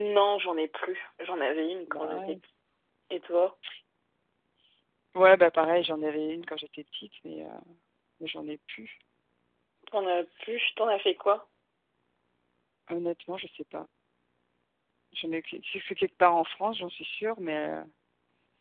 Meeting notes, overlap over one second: none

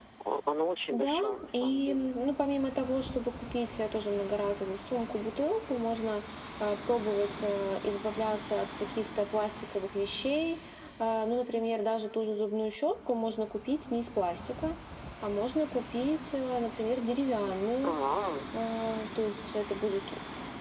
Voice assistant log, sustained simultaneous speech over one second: present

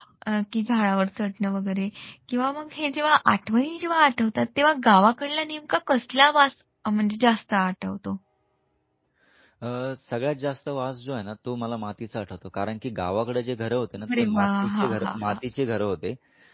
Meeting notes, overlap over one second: present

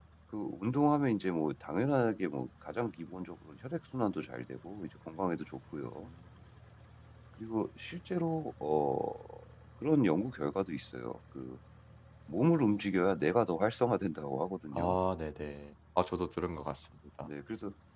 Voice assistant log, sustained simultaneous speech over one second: none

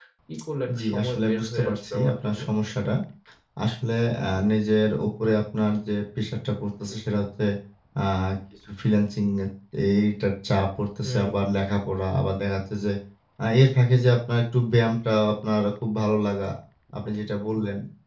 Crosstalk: present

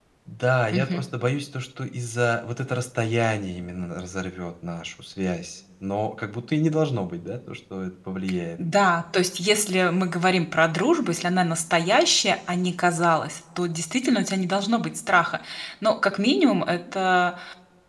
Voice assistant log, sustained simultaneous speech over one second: none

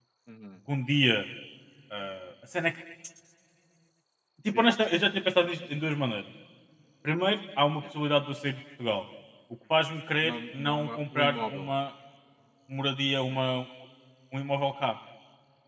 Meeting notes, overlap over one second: present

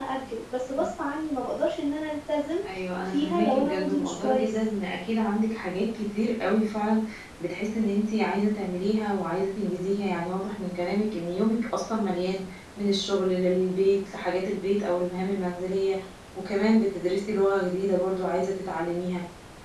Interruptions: present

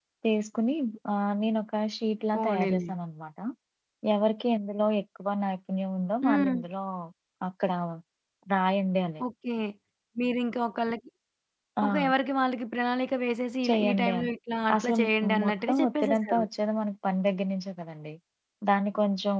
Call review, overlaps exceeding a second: present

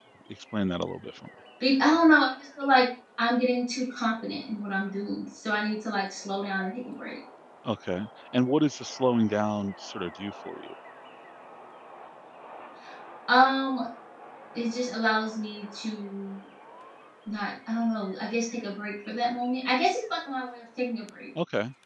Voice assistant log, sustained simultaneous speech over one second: none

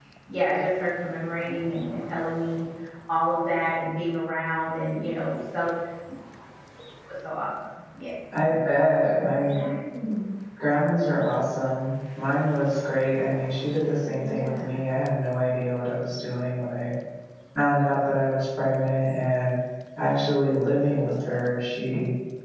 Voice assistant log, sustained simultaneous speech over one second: none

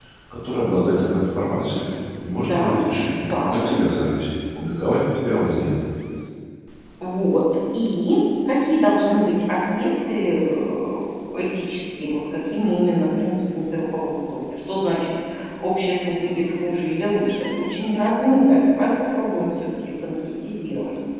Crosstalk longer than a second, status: present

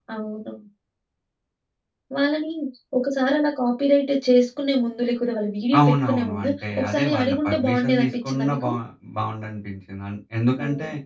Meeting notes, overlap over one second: present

